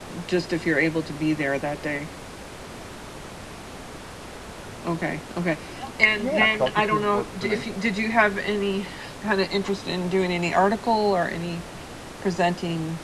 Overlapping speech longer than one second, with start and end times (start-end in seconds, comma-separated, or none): 6.2-7.6